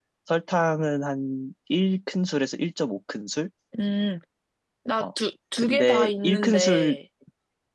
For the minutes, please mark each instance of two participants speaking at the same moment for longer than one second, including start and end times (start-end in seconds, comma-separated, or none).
5.6-7.0